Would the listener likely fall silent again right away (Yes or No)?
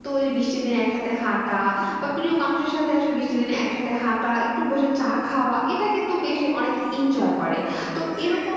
Yes